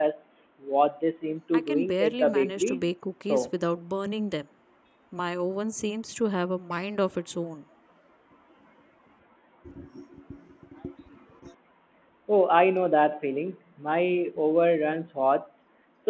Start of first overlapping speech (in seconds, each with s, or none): 1.5 s